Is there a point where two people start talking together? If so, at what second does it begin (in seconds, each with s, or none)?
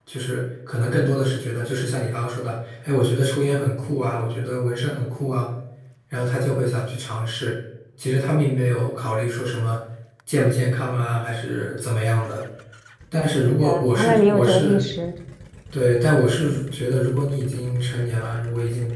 13.6 s